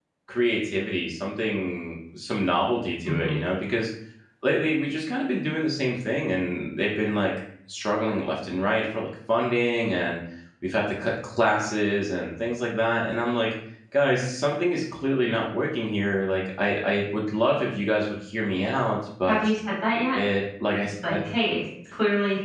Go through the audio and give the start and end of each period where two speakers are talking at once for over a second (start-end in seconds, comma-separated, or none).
none